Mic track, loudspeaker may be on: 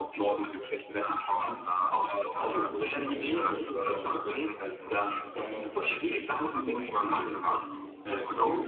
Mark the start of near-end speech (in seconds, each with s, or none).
2.3 s